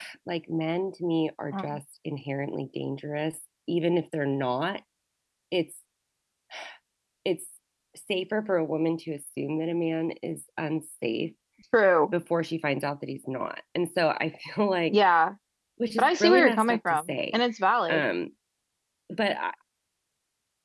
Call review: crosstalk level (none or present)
present